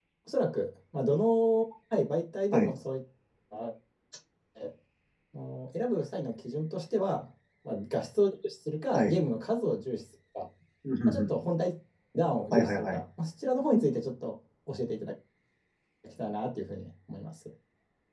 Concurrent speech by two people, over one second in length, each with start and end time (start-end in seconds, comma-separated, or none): none